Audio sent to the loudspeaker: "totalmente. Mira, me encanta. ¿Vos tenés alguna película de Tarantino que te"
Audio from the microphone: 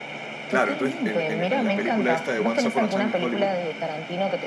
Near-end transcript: claro, entonces en, en- en la película esta de Once Upon a Time in Hollywood,

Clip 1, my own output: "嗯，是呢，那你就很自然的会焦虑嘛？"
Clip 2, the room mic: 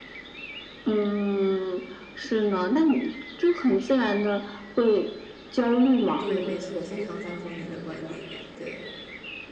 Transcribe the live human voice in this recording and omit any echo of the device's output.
嗯，对，没错，非常赞同你的观点，对。

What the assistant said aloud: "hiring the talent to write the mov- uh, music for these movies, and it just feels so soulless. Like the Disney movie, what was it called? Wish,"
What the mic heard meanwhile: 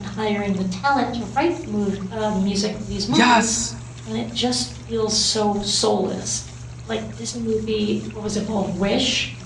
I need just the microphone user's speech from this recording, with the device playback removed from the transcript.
Yes!

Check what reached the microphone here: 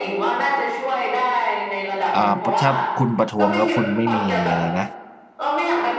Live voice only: อ่าถ้าคุณประท้วงแล้วคุณไม่มีอะไรนะ

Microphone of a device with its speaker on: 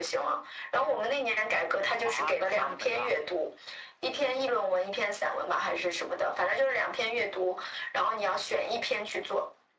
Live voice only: 啊，那分儿就没了。

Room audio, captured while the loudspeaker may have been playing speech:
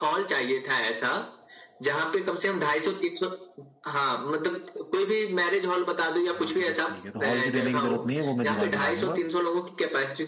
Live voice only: हाँ तो बस ठीक है तो हॉल की देने की जरूरत नहीं है वो मैं जुगाड़ बना लूंगा

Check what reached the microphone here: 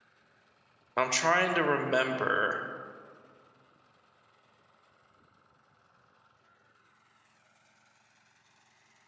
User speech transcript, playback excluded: I'm trying to remember.

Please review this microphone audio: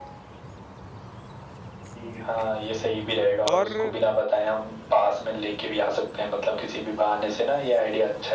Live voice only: और

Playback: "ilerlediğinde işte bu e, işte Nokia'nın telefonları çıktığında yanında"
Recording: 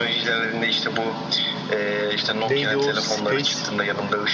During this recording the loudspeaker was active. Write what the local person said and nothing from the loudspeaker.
Neydi o? Space.

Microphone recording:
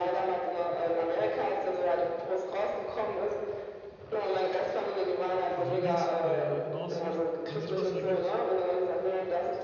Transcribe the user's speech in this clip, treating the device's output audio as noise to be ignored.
also nichts äh, in Aussicht. Wenn sich was ergibt,

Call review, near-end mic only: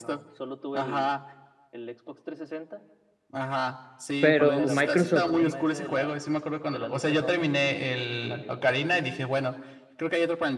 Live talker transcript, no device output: Pero Microsoft, sí.

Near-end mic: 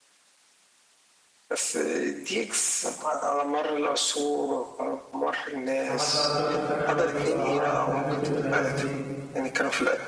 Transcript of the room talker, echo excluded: عمل بقى الدكتور ساكانوميكس اه عمل بتاعت الدكتور ساكانوميكس دي

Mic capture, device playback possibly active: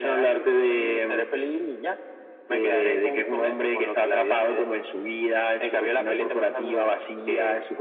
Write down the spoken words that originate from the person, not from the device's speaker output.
none

